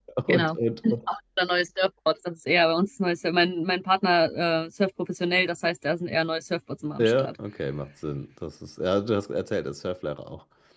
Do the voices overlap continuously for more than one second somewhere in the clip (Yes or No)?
No